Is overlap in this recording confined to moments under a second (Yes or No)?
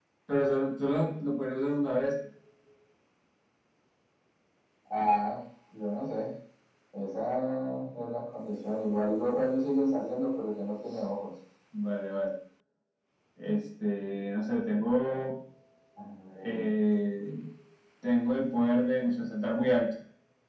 Yes